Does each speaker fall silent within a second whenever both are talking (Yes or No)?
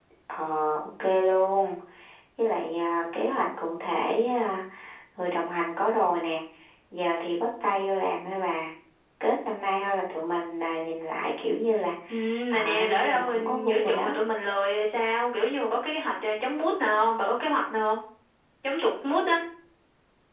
No